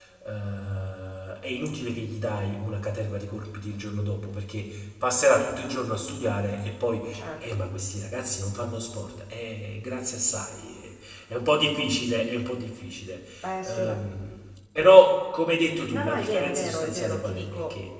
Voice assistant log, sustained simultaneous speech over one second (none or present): present